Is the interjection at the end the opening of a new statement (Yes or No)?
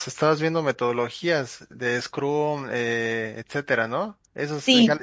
Yes